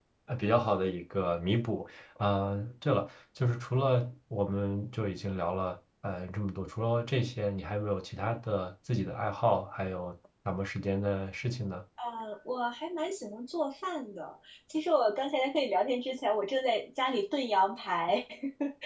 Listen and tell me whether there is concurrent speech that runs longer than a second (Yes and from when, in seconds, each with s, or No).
No